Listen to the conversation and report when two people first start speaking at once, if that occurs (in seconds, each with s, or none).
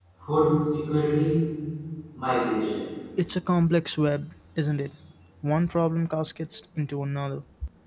none